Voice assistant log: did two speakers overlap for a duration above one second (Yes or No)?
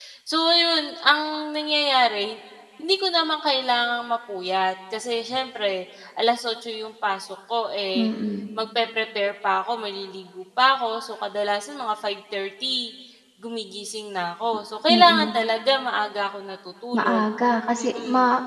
No